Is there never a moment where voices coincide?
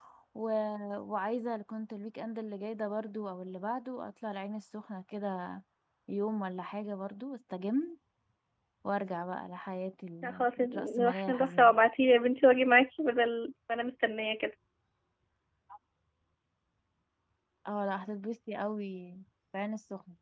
No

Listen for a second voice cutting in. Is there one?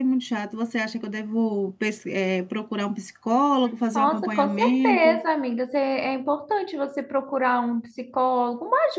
Yes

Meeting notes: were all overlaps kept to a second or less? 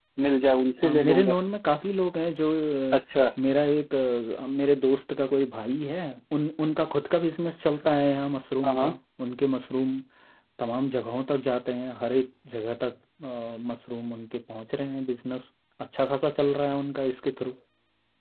Yes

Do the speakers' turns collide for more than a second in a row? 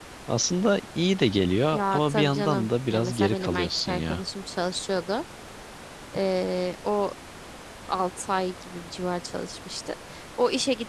Yes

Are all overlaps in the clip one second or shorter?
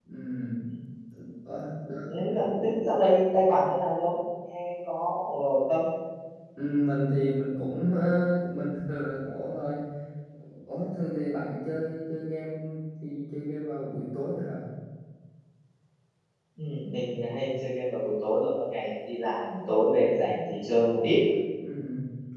Yes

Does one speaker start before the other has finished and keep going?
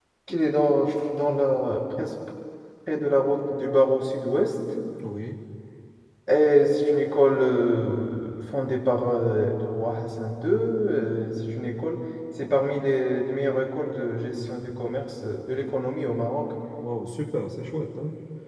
No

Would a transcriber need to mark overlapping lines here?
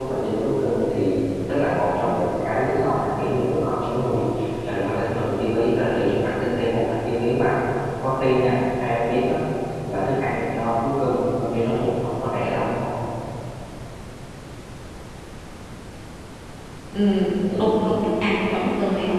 No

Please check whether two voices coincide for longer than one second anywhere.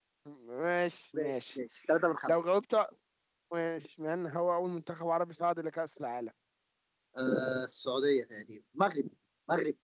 No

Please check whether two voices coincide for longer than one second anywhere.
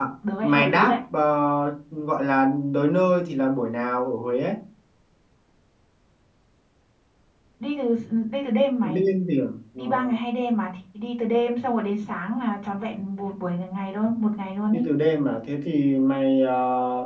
No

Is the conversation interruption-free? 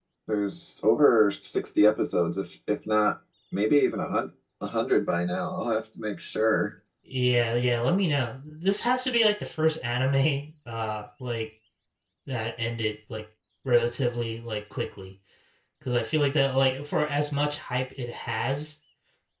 Yes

